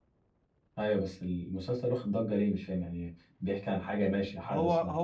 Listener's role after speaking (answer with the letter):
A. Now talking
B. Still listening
A